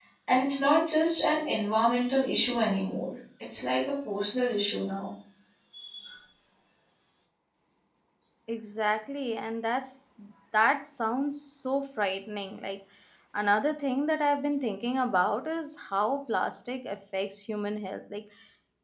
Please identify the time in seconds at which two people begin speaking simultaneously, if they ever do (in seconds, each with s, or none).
none